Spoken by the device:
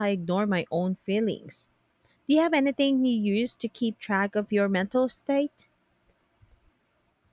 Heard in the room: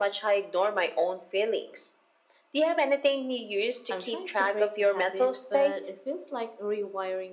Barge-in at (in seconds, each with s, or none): 3.9 s